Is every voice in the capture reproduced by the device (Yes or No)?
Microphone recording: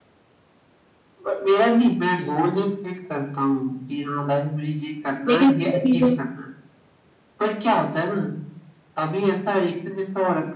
No